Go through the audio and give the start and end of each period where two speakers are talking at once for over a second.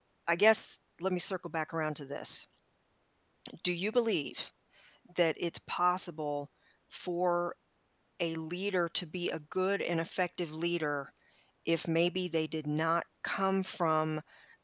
none

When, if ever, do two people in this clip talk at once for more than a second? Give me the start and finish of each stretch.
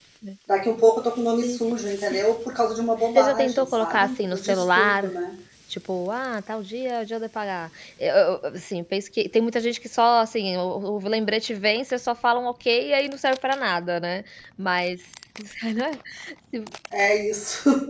3.0-5.1

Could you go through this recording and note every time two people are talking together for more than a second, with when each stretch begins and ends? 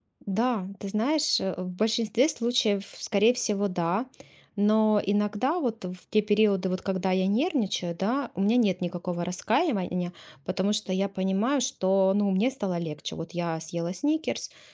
none

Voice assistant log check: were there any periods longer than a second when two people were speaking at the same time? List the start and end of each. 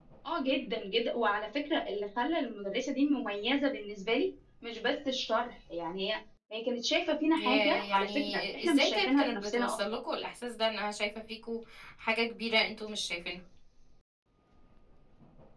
7.4-9.8

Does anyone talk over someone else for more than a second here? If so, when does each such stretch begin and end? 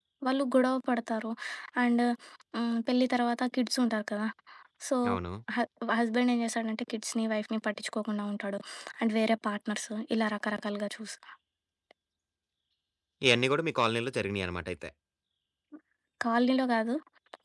none

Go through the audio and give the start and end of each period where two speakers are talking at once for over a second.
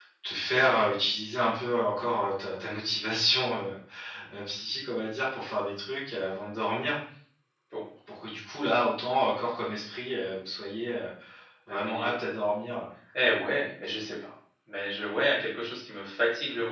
none

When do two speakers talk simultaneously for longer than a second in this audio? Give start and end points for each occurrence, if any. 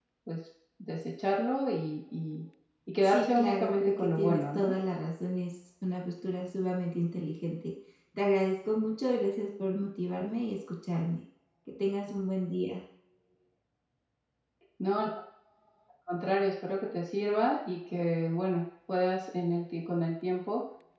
3.0-4.7

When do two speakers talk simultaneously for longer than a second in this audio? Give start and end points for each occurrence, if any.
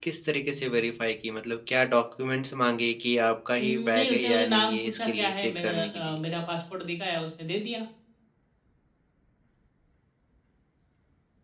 3.6-6.2

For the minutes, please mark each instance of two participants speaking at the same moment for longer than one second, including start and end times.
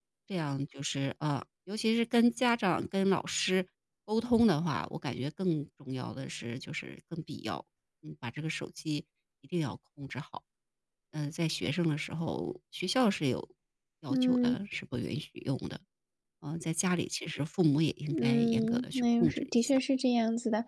18.2-19.8

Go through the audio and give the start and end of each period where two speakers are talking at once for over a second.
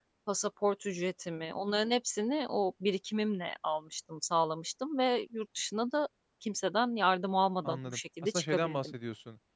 7.6-8.9

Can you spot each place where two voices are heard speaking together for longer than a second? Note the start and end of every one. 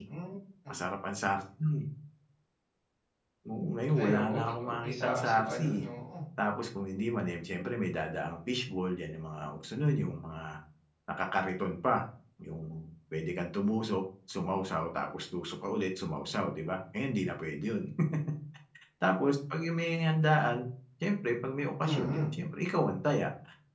4.0-5.8

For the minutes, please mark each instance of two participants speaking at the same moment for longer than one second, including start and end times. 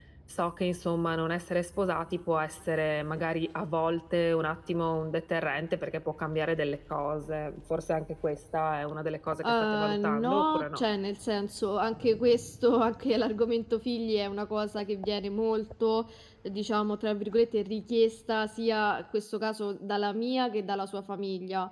9.4-10.8

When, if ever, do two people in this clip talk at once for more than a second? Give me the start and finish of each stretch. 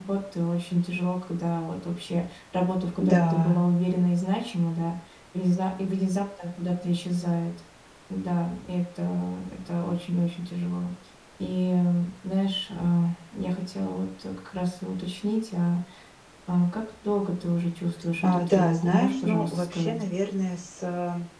18.2-20.0

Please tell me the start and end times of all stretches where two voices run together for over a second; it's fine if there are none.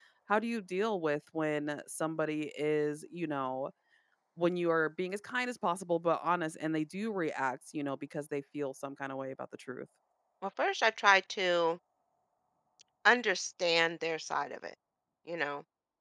none

